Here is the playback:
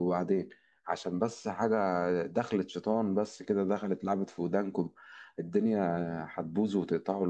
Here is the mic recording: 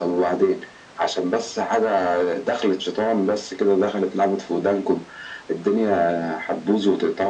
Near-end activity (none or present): none